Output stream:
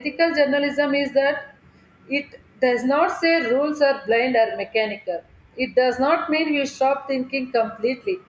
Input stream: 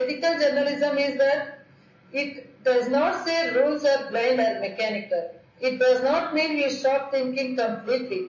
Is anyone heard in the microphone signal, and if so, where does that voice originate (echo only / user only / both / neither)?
echo only